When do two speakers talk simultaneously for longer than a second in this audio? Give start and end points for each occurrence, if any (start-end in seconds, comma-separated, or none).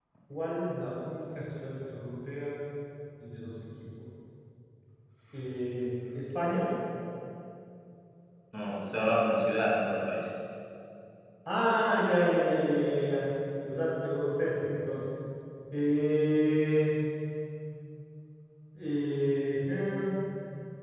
none